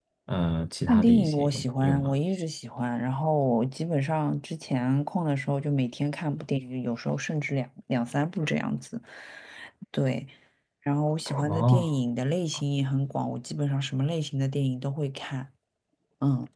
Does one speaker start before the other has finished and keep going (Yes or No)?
Yes